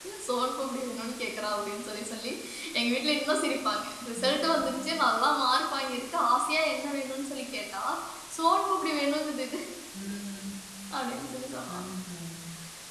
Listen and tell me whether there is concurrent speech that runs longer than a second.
No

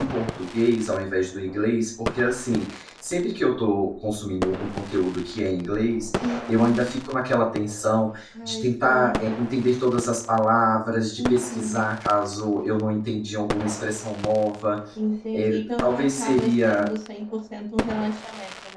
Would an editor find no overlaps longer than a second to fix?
No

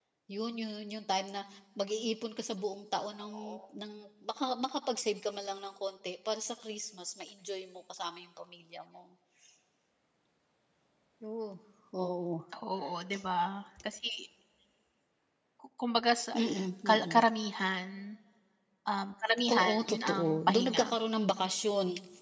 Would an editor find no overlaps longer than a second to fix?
No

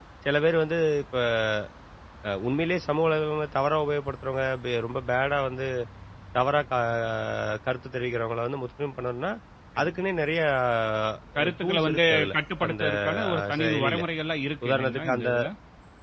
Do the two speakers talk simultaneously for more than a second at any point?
Yes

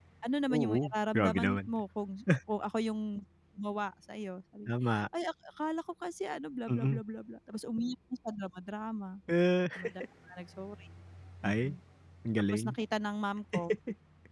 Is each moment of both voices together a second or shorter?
No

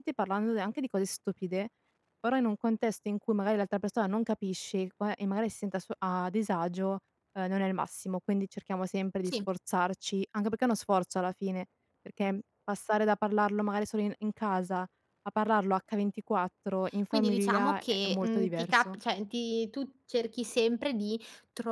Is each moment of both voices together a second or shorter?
No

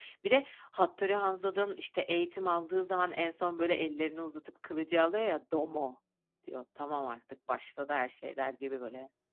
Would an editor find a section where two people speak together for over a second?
No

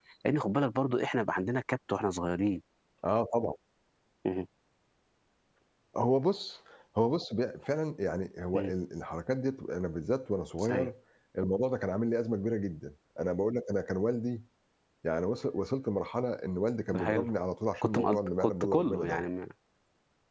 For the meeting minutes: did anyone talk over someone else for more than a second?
Yes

